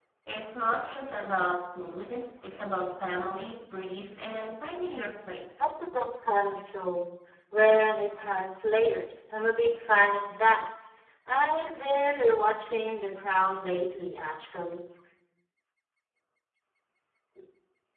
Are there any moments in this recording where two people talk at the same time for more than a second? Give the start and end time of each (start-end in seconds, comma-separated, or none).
none